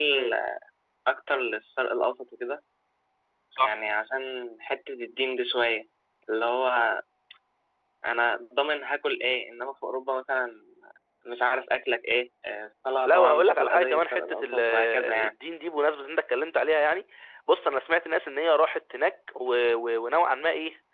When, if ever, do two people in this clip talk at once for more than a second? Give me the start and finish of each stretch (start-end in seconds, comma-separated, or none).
13.1-15.3